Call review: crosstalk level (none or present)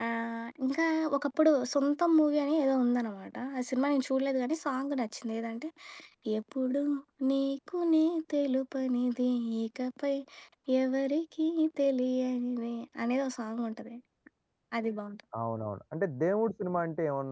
none